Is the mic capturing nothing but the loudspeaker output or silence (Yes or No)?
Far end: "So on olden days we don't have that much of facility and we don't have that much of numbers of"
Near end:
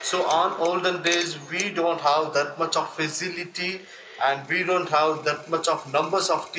Yes